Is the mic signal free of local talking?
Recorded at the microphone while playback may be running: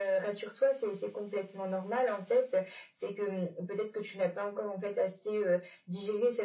Yes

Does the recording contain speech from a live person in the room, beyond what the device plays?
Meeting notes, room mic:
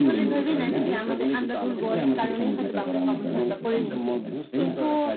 Yes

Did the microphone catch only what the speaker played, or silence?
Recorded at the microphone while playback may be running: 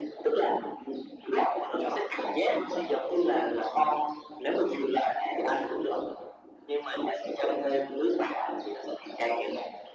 Yes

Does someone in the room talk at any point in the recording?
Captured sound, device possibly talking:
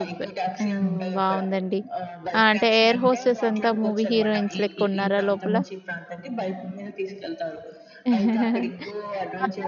Yes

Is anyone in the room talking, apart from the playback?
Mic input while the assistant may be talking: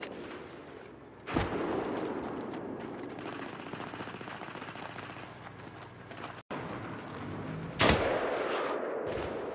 No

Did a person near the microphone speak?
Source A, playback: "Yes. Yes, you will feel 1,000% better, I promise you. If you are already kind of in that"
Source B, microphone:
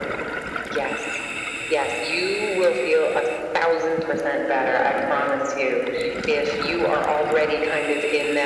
No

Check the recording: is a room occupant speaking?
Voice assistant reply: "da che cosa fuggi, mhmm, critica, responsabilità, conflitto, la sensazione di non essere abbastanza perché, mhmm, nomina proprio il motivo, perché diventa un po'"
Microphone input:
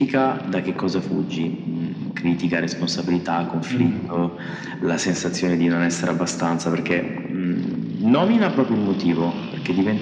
Yes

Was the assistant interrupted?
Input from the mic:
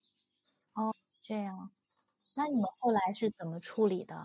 Yes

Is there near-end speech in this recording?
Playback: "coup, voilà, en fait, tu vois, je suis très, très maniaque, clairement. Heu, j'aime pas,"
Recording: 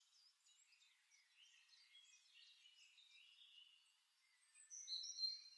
No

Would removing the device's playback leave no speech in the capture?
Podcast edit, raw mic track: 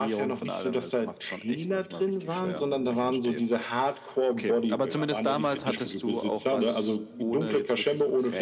Yes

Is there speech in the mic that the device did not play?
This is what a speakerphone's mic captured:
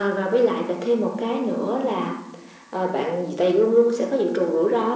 No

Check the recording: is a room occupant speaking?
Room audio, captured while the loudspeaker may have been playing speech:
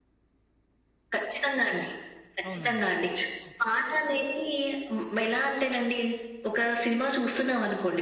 Yes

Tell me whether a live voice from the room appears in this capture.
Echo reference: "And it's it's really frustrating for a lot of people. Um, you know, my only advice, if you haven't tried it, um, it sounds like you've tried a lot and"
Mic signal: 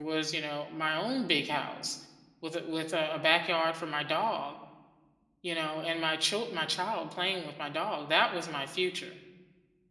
Yes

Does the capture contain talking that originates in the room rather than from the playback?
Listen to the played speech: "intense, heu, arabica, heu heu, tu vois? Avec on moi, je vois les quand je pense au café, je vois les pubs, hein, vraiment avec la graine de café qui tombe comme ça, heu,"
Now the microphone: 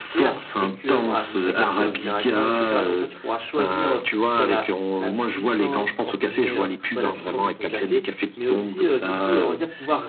Yes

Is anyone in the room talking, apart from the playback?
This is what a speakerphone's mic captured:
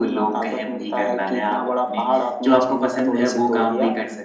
No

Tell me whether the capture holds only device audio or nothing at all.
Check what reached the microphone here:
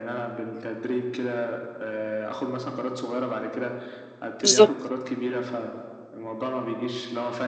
No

